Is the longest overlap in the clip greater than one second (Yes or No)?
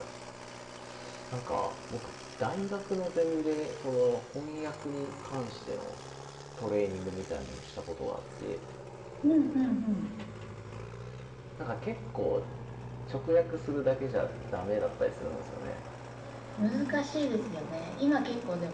No